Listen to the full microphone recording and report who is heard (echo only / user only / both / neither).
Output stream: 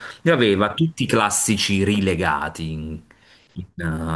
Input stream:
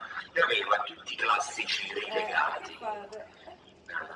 both